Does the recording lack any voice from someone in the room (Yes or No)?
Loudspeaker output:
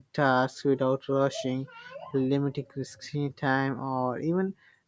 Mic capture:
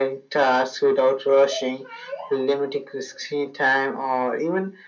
Yes